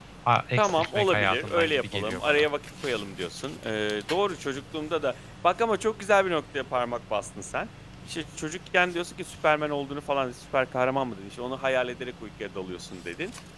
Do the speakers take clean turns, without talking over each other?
No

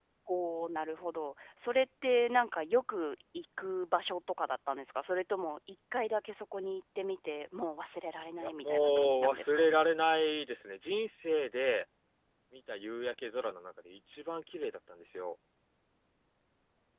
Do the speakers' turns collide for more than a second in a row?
Yes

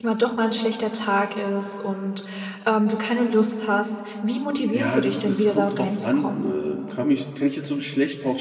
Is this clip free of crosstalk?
No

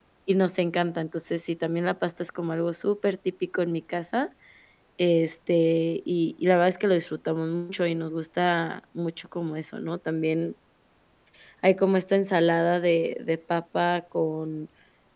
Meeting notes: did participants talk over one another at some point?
No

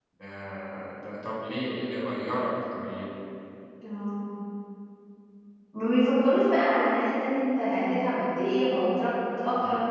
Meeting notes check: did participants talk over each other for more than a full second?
No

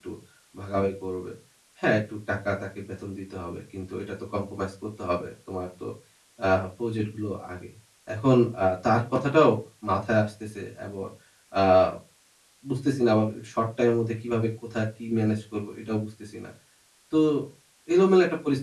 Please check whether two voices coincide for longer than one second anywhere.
No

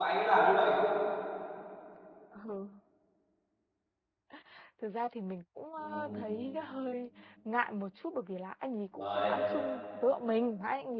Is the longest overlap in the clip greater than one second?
No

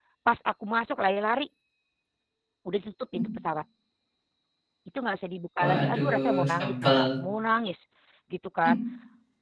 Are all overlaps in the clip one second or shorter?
No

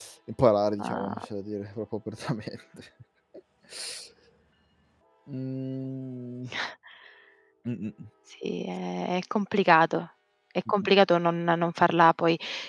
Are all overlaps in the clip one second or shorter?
Yes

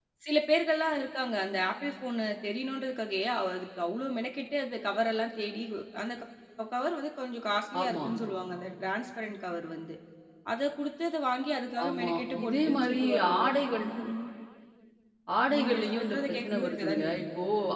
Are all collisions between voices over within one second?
No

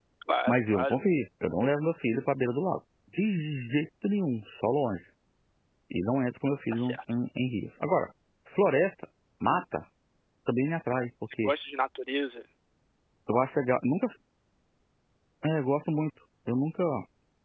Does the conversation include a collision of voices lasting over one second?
No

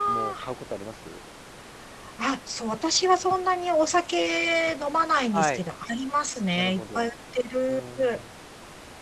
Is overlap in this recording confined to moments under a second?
Yes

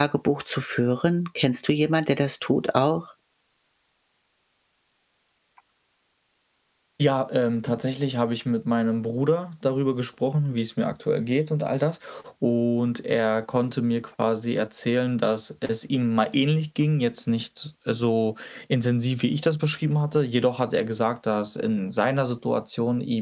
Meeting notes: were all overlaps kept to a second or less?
Yes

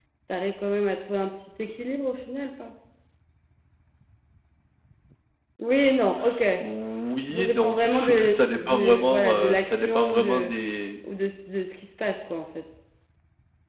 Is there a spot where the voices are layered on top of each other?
Yes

